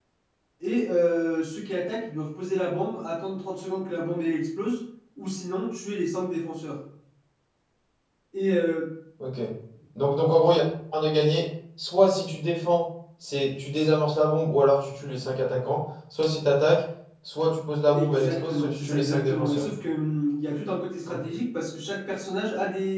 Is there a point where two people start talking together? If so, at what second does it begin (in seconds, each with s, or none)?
17.9 s